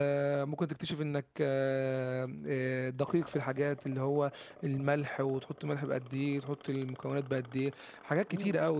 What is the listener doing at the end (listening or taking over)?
taking over